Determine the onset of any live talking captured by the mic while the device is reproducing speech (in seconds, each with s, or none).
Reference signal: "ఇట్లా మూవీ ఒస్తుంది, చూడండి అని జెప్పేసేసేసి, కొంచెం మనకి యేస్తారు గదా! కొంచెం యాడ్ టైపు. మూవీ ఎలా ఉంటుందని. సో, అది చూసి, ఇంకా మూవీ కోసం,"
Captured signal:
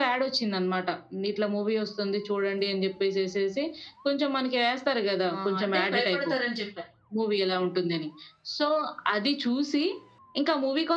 5.3 s